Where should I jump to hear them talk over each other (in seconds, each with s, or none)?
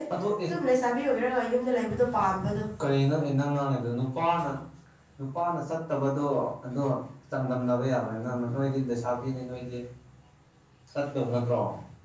none